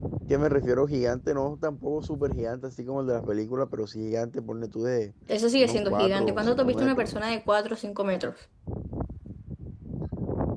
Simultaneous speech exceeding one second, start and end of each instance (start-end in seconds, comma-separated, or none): 5.6-7.1